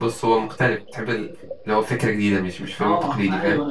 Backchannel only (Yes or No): No